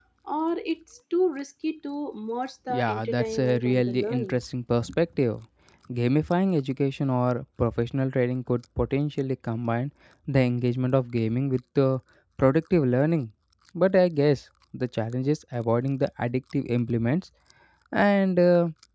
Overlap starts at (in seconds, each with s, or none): 2.7 s